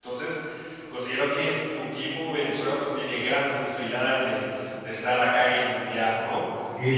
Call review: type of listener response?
taking over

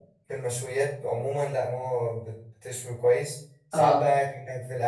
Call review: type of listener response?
listening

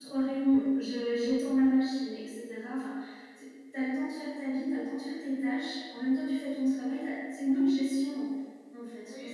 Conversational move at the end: taking over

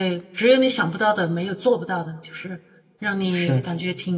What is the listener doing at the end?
listening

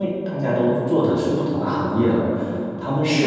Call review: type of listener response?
listening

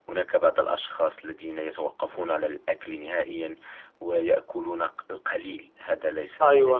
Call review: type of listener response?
taking over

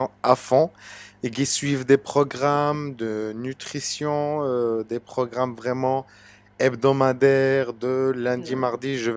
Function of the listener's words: listening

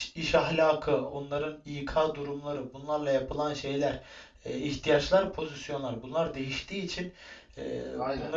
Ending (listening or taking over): listening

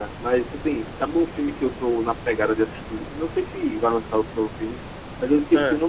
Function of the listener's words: listening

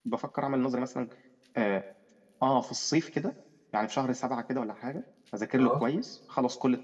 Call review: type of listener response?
listening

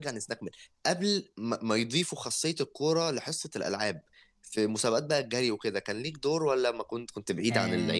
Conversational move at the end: taking over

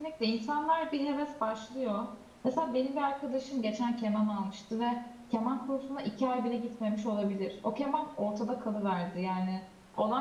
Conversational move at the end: listening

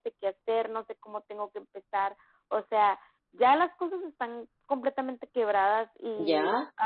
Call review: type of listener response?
taking over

